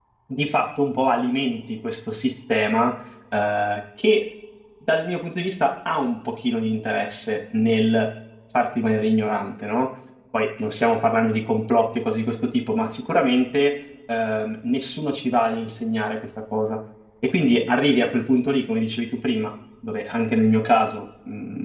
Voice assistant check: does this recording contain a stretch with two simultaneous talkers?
No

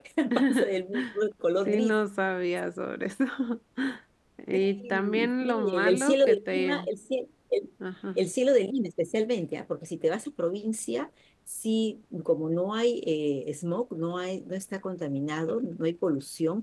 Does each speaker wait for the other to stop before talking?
No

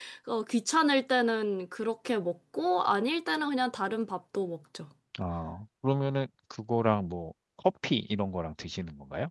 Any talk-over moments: No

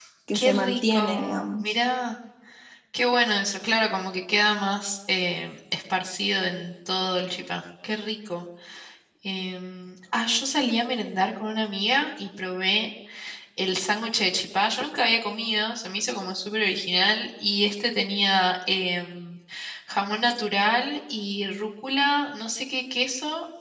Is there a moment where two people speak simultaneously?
Yes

